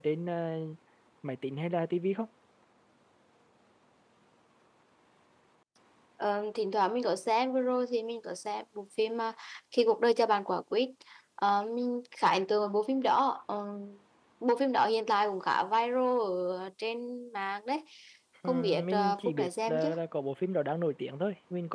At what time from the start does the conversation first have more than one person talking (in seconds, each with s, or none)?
18.4 s